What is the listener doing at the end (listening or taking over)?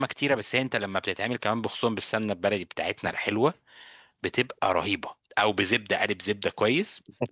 taking over